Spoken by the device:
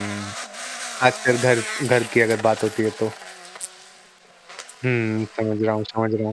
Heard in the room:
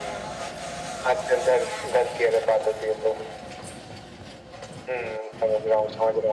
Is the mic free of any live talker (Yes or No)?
Yes